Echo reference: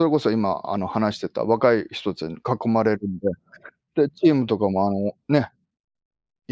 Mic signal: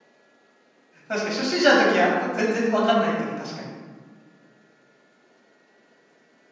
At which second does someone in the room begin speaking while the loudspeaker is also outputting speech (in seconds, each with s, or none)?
1.1 s